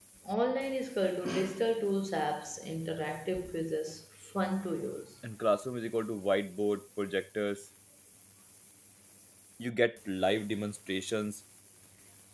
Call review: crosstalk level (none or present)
none